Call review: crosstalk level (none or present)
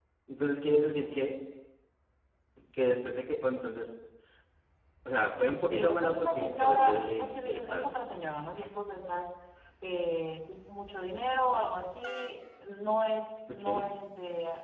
present